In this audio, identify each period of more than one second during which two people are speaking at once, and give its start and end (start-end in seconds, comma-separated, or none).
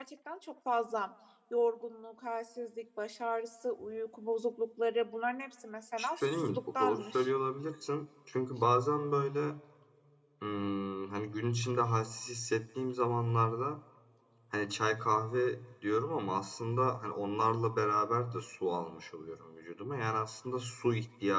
6.0-7.3